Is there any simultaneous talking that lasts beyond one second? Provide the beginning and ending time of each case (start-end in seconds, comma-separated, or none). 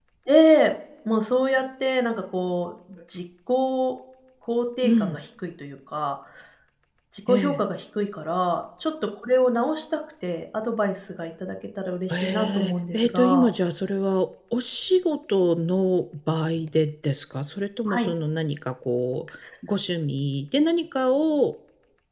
12.1-13.5